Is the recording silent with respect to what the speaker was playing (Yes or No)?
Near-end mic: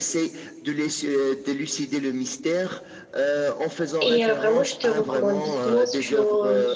No